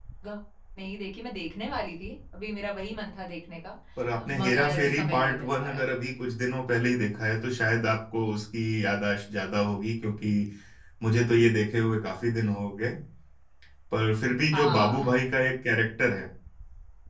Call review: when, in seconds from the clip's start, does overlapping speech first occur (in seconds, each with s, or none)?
4.4 s